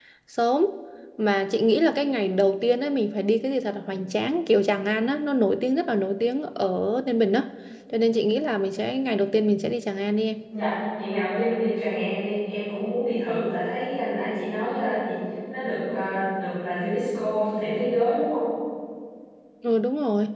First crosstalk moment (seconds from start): none

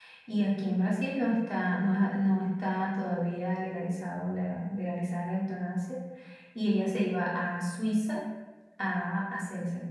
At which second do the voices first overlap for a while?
none

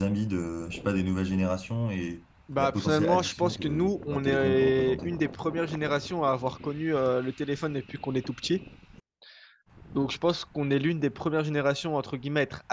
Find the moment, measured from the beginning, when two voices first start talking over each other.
2 s

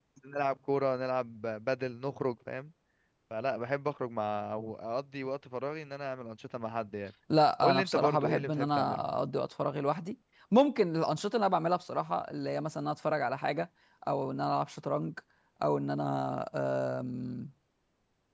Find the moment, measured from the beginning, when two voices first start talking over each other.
8 s

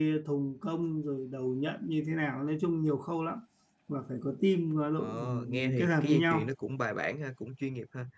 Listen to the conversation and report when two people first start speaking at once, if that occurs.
5 s

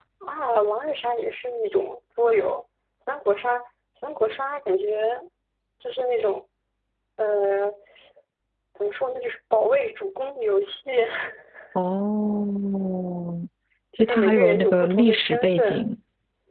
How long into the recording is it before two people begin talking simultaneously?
14 s

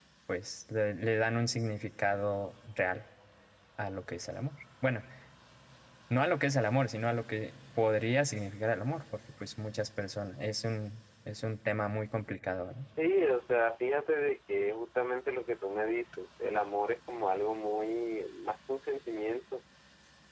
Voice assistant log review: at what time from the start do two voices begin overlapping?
none

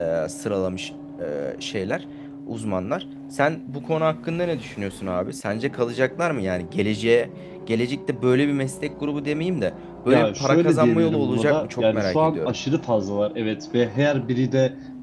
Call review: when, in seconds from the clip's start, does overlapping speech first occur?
10 s

